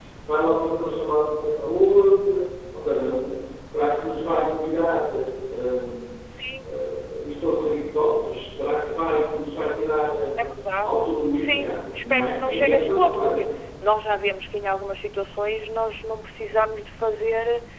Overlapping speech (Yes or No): Yes